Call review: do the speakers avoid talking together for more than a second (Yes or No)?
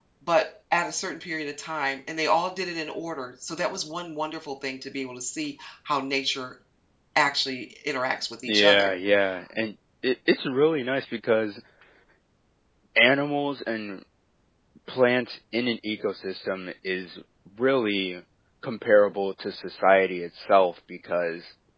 Yes